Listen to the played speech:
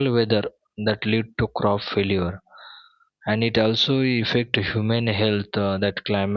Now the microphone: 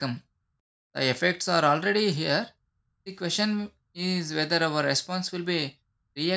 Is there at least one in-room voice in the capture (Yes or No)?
Yes